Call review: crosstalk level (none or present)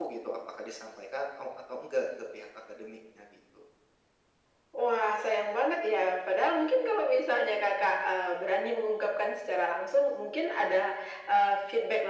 none